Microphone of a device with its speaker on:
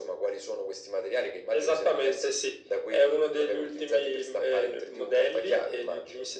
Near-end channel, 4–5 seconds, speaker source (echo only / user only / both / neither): echo only